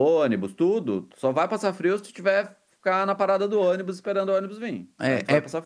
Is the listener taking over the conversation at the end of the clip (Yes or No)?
Yes